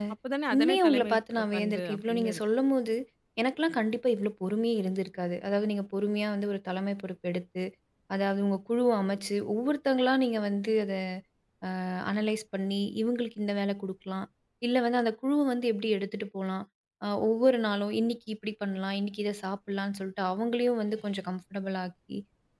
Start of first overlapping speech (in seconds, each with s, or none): 0.5 s